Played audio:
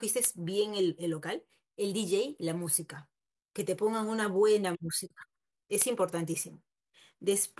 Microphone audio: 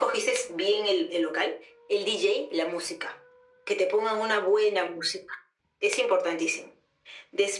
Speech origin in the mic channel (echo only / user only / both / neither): echo only